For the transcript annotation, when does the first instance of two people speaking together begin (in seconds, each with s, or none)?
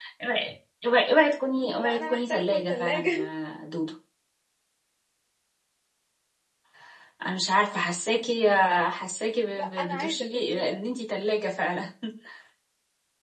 1.7 s